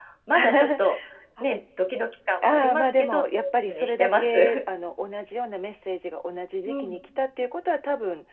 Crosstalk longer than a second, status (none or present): present